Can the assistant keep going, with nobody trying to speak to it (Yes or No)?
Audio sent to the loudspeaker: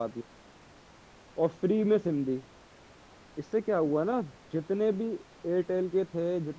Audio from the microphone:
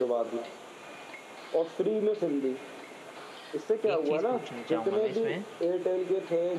No